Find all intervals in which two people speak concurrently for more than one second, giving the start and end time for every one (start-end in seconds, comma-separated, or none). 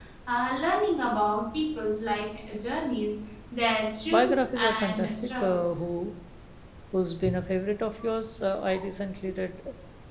4.1-5.8